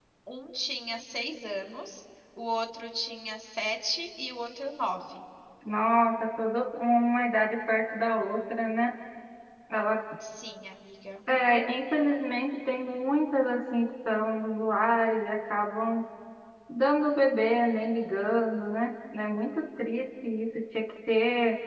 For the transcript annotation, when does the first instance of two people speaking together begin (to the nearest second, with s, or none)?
none